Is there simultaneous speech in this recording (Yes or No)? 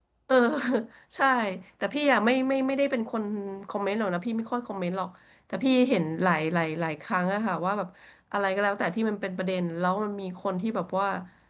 No